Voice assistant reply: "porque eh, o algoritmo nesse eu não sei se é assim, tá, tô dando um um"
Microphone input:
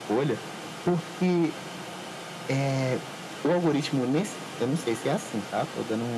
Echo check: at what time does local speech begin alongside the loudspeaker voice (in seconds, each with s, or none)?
none